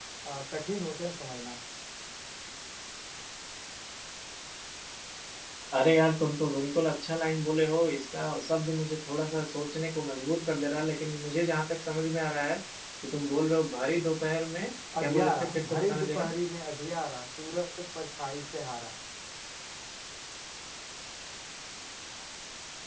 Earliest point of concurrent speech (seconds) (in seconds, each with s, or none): 14.9 s